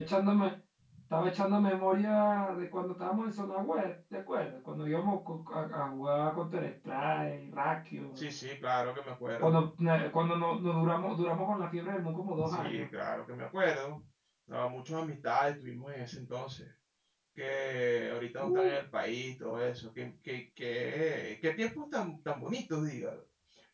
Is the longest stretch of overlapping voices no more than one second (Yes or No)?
Yes